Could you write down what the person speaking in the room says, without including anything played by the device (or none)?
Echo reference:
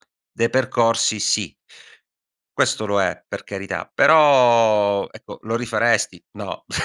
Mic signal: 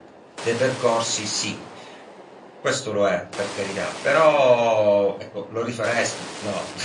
none